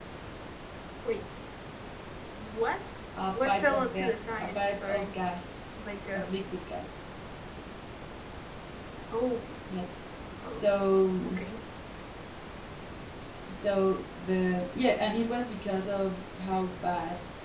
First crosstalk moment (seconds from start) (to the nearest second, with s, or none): 3 s